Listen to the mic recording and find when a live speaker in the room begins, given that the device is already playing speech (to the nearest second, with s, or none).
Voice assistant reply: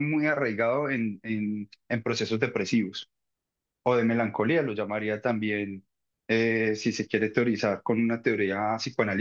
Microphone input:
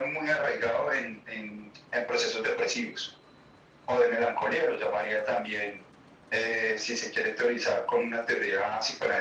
none